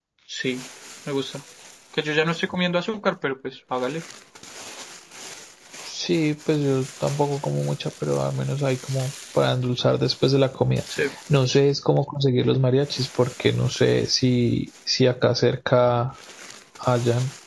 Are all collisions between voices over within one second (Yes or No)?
Yes